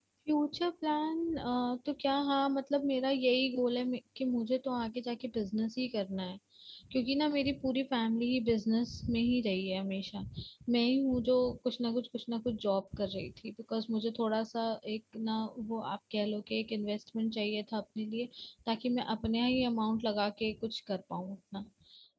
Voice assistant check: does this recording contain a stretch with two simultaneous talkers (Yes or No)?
No